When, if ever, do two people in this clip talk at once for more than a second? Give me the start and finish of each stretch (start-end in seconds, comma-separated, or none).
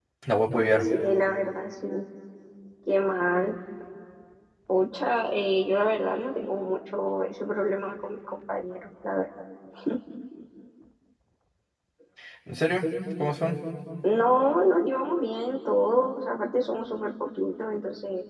none